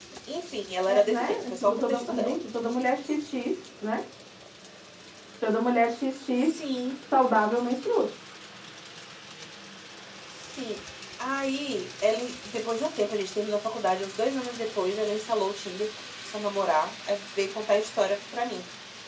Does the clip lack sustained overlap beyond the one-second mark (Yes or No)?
No